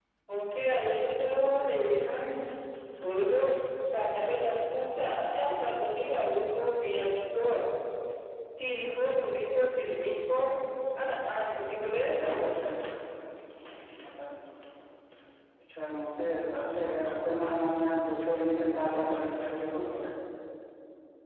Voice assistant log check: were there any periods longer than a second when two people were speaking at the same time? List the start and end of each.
none

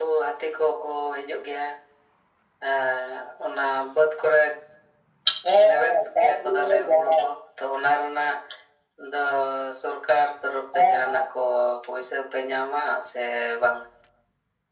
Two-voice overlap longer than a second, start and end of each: 5.7-7.1

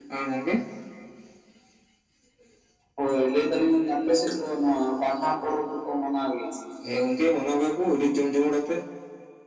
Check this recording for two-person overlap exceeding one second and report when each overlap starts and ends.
none

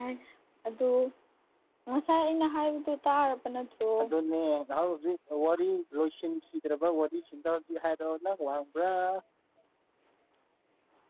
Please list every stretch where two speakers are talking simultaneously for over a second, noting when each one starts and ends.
none

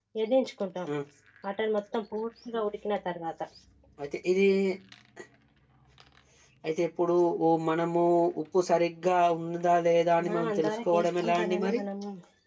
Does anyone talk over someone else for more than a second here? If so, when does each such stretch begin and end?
10.2-11.8

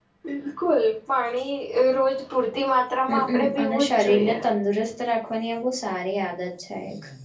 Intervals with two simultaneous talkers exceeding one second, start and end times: 3.1-4.3

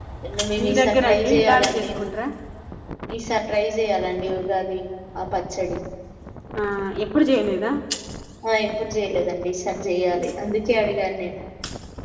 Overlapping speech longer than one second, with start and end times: 0.6-1.9

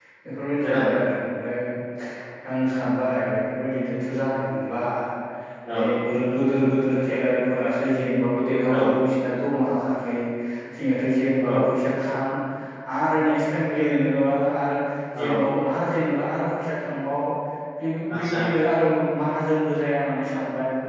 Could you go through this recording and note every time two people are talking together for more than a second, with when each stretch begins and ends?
none

